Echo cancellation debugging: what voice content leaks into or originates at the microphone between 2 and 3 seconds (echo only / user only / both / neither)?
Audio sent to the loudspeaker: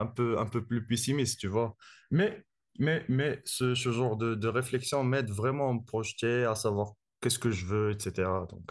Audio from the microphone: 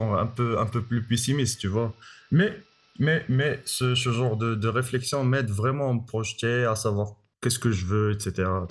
echo only